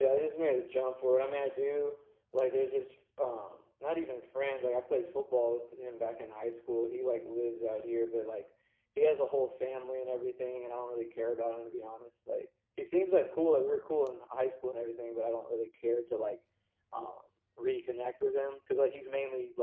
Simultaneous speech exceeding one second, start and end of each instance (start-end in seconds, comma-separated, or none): none